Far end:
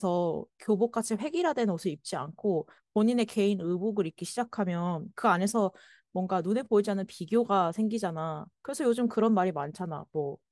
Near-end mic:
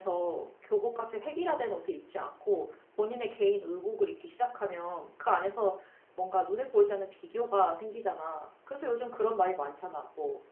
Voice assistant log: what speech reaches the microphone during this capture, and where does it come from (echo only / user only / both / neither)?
echo only